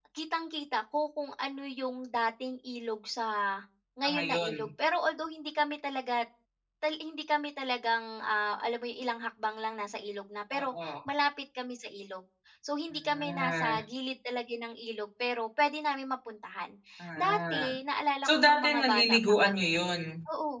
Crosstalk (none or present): present